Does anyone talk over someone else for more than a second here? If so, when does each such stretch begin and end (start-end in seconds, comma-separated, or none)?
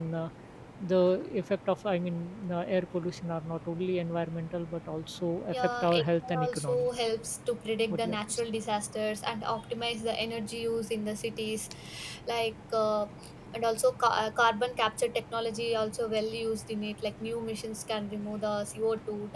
5.5-6.9